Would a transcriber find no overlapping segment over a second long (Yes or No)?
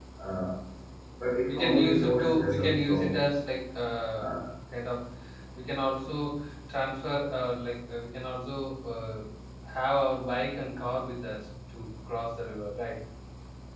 No